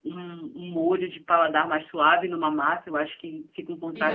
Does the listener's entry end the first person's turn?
Yes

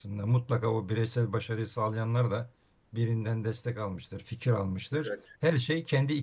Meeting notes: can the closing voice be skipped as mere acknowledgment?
Yes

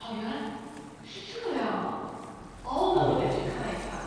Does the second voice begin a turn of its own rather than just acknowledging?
No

